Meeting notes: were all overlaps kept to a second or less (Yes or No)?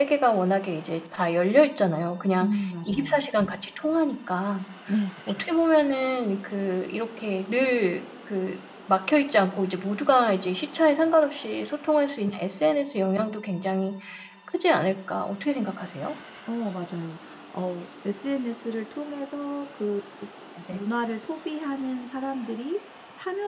Yes